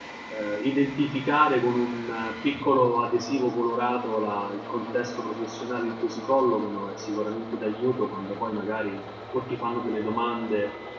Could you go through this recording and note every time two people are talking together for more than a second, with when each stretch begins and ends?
none

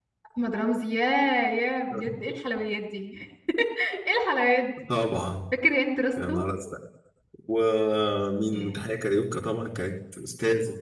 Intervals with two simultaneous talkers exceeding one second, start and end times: none

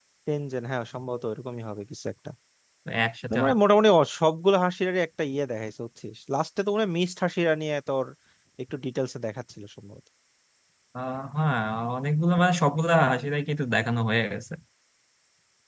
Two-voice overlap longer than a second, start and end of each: none

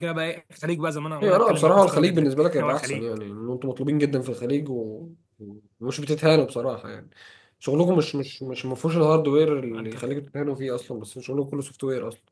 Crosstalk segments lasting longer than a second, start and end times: 1.2-3.0

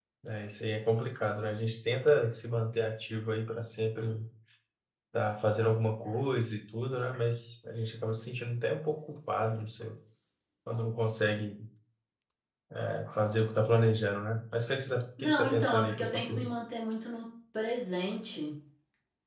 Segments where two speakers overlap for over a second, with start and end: 15.2-16.5

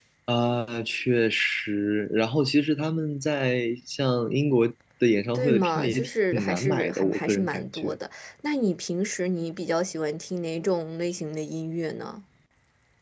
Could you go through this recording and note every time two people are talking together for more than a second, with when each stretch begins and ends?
5.3-8.0

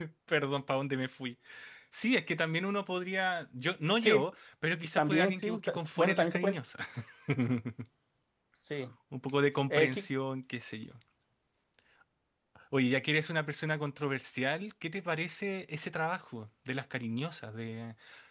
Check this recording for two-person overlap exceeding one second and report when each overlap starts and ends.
5.0-6.5

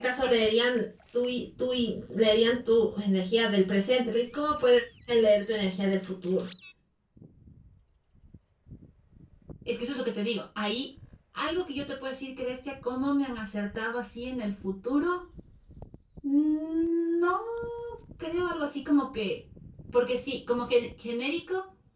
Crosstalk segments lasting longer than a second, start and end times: none

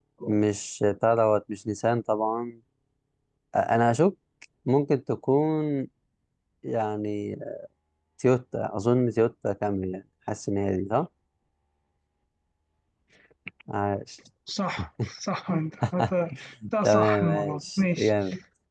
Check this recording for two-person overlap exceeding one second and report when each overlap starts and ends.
16.8-18.1

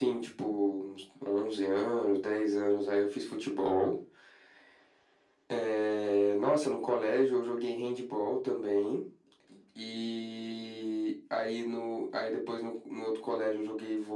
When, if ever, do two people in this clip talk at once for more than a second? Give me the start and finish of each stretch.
none

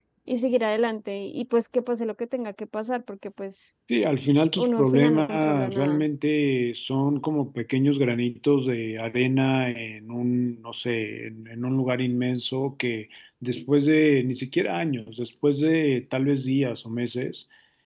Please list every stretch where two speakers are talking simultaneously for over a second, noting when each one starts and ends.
4.6-6.0

